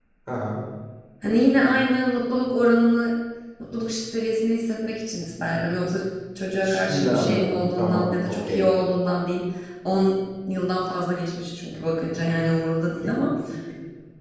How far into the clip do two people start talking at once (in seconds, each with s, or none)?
6.6 s